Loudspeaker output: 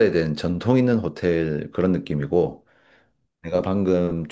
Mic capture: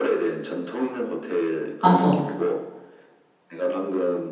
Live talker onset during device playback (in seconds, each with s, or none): 1.8 s